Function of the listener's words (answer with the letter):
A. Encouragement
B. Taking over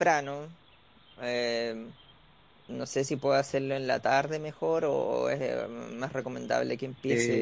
B